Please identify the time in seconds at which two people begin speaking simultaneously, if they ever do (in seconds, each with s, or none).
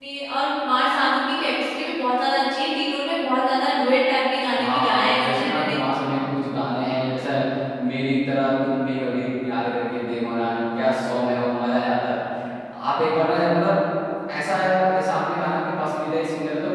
4.5 s